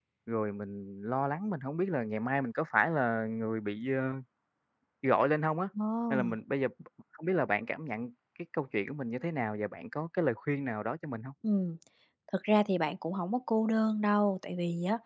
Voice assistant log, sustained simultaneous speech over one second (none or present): none